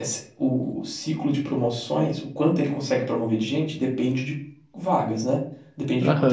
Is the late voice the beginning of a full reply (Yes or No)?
Yes